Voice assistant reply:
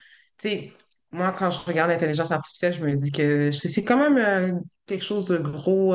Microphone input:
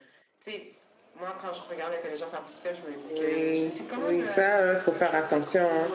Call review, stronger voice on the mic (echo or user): user